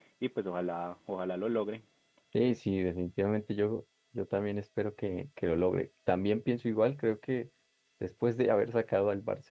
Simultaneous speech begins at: none

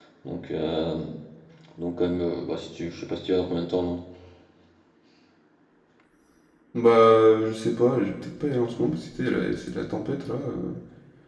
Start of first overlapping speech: none

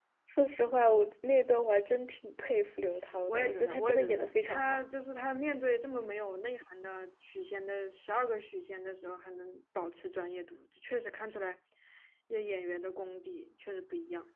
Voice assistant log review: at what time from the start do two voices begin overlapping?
3.3 s

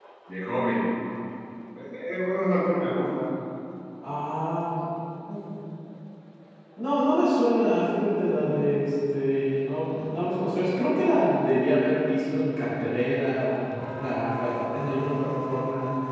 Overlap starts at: none

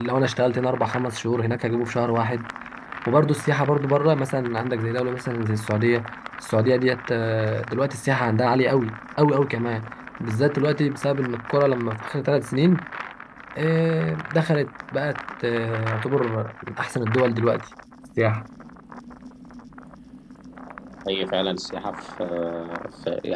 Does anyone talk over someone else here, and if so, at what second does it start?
none

